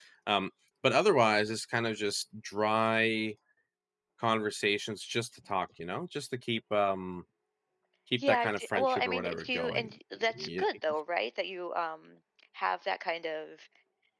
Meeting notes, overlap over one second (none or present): present